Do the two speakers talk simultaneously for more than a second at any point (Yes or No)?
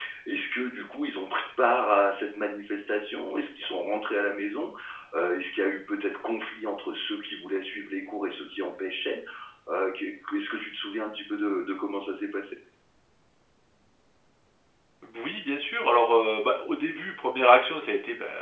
No